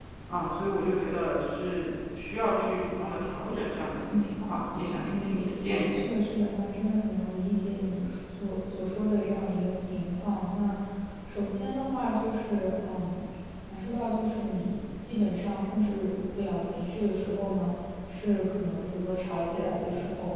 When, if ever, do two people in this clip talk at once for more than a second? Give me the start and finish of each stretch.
none

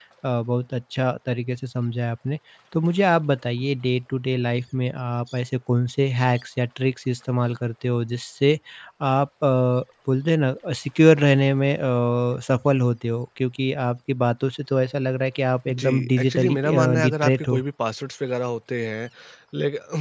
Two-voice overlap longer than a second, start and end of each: 15.7-17.6

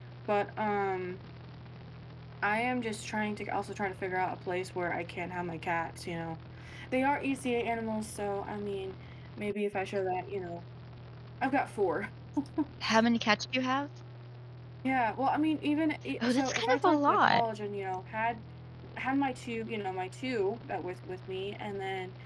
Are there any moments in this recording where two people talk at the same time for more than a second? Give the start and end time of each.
16.2-17.4

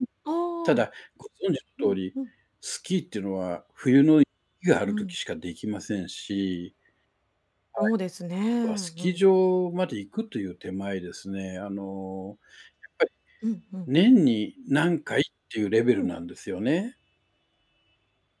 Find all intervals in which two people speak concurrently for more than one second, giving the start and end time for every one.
none

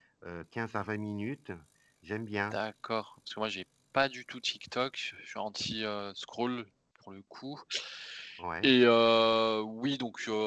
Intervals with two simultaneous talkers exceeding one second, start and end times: none

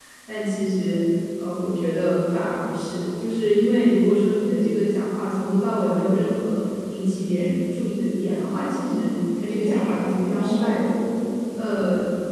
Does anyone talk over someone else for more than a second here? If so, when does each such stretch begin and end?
9.6-10.9

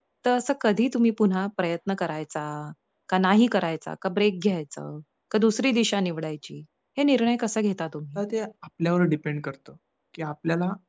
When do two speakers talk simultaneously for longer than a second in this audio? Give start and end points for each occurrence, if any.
none

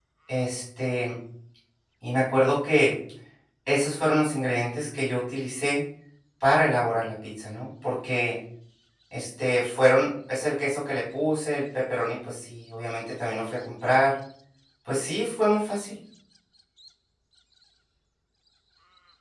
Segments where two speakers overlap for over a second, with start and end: none

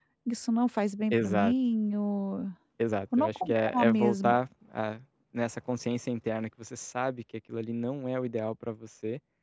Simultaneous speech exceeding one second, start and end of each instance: 3.2-4.4

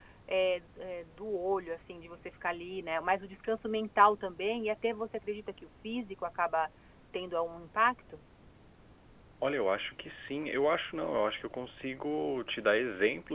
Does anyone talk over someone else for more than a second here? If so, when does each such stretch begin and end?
none

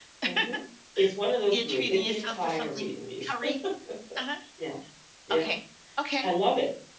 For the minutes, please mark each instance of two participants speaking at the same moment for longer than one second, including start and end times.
1.5-2.9

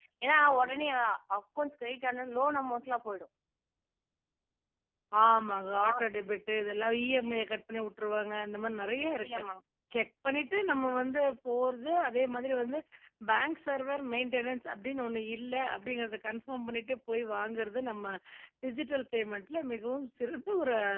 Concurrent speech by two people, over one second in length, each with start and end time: none

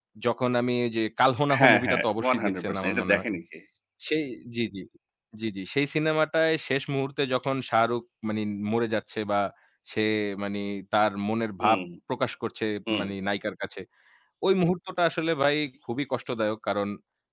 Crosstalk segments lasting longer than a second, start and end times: 1.6-3.2

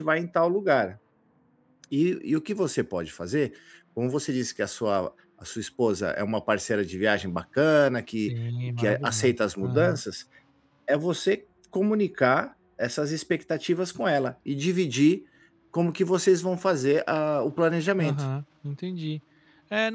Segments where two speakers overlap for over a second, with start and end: 8.8-10.0

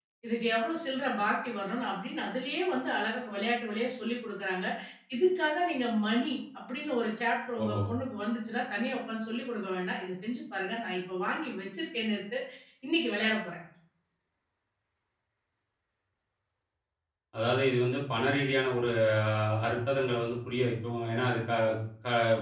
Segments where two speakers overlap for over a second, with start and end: none

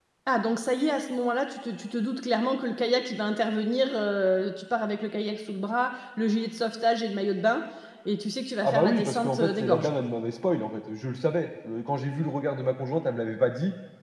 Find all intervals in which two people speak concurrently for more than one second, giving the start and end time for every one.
8.6-9.9

